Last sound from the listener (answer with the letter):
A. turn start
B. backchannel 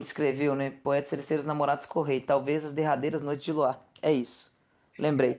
B